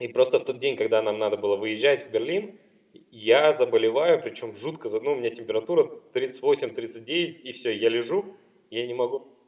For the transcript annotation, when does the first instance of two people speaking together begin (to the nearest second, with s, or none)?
none